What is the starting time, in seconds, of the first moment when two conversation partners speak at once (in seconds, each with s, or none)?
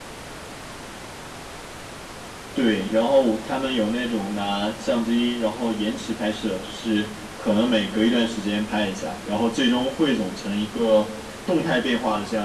none